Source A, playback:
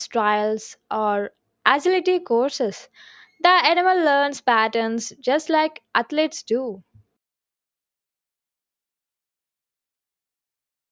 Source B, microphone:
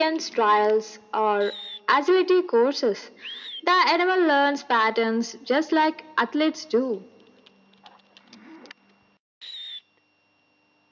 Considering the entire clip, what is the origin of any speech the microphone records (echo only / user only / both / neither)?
echo only